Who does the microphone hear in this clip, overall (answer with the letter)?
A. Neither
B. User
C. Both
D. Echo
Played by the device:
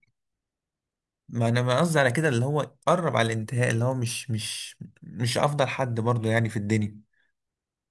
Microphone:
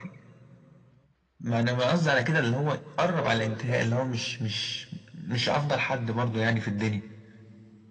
C